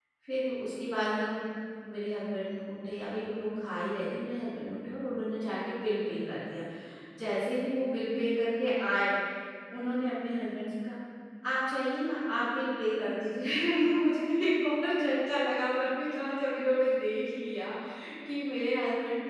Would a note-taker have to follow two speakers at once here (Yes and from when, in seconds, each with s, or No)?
No